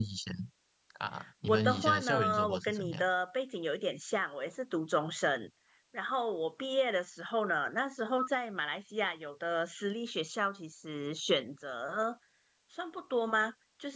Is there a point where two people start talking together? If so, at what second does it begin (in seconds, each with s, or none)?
1.4 s